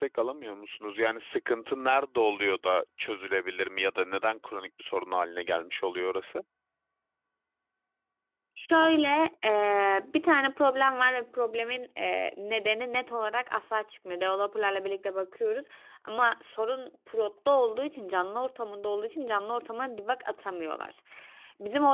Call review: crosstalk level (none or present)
none